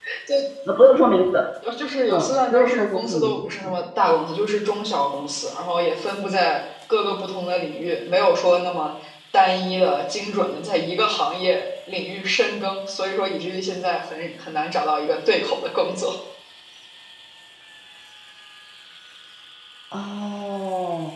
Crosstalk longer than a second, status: present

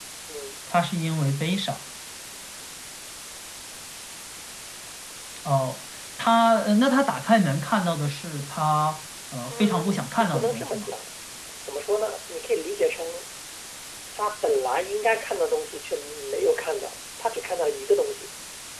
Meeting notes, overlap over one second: present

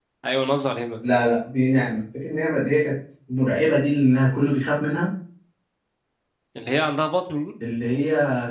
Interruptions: none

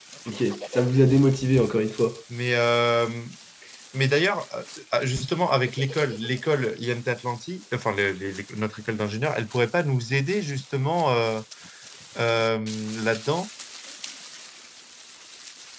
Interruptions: none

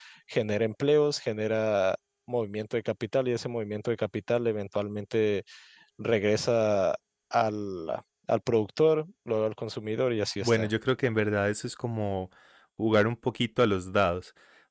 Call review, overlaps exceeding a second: none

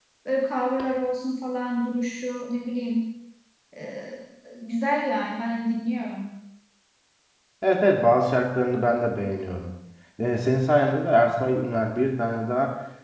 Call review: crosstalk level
none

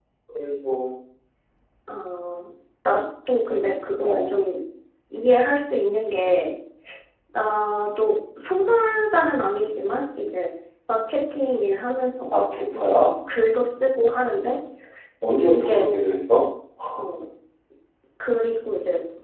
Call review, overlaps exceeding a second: none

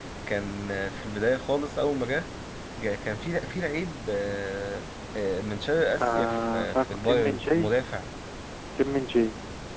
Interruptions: present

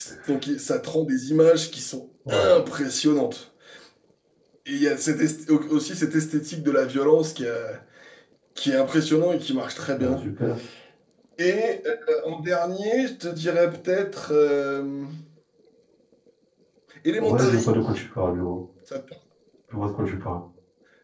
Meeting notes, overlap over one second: none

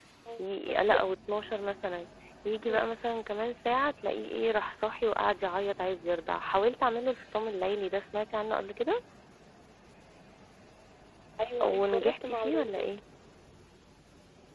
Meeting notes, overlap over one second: present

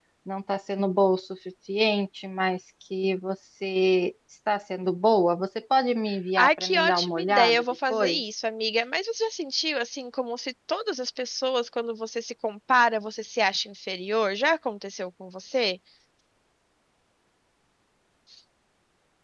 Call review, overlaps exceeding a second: present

